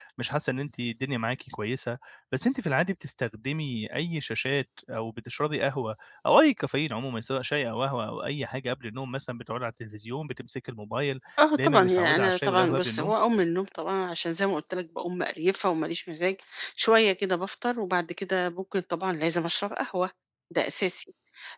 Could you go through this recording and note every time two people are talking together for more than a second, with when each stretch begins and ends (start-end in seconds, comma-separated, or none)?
11.6-13.1